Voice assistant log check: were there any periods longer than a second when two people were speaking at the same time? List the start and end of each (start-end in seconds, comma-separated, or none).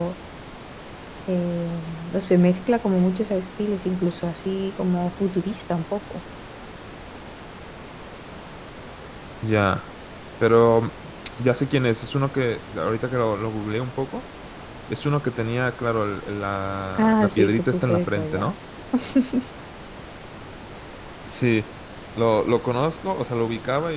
17.0-18.5